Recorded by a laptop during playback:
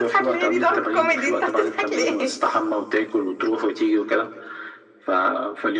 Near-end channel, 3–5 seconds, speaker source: echo only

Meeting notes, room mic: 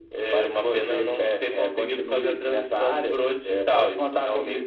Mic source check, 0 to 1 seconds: echo only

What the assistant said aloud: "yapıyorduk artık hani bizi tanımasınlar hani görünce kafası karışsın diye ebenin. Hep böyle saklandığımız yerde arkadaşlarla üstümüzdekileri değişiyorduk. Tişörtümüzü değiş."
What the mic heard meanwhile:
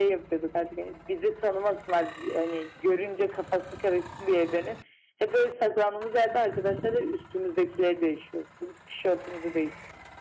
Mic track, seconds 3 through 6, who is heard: echo only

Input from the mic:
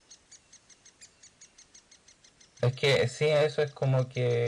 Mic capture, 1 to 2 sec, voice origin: neither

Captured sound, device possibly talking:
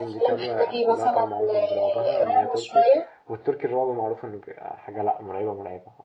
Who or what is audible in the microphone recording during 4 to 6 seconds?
user only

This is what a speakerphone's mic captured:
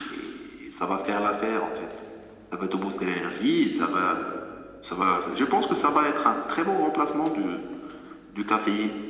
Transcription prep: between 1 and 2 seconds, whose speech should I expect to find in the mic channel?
echo only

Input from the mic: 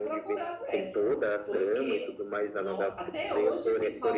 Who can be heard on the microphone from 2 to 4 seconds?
both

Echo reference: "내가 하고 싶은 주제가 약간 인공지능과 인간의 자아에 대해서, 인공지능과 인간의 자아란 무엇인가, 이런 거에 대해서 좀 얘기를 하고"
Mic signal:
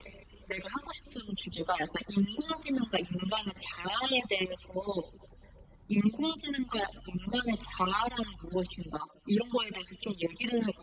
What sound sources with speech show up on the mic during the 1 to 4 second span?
echo only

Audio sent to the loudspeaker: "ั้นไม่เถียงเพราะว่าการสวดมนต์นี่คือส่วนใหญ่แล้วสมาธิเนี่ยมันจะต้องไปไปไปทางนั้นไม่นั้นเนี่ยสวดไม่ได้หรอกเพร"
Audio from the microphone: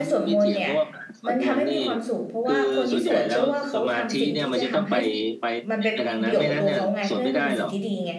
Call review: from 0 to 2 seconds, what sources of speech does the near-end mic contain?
both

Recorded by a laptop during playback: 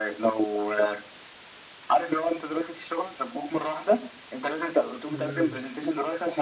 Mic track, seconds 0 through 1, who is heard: echo only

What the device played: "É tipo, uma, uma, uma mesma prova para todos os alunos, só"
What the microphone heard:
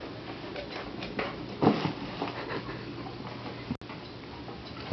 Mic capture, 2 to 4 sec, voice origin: neither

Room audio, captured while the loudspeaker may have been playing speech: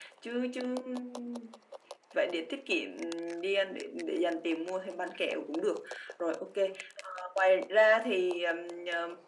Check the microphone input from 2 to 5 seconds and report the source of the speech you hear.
echo only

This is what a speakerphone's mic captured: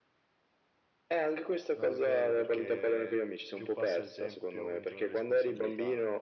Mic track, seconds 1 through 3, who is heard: both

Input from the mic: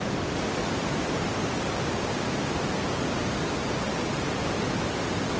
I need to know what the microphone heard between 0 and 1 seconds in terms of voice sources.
neither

